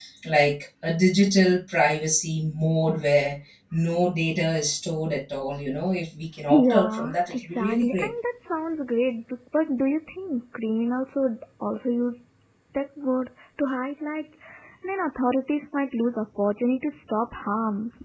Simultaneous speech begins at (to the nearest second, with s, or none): 6 s